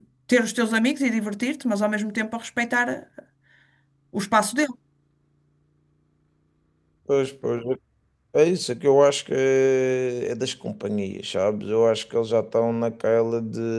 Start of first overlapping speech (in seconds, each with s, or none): none